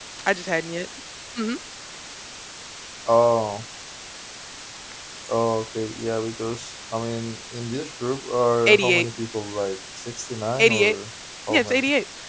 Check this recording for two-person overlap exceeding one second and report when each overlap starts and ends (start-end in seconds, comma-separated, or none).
none